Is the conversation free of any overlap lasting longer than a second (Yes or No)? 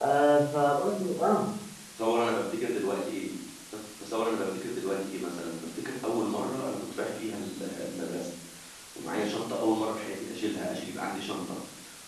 Yes